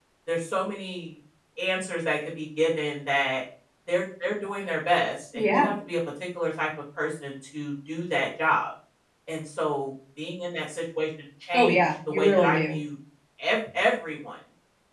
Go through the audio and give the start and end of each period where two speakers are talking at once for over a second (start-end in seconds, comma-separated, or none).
11.5-12.8